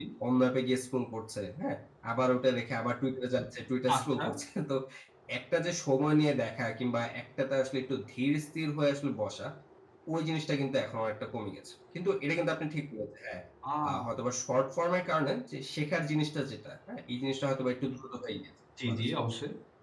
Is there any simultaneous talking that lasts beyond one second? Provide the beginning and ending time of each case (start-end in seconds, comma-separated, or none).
none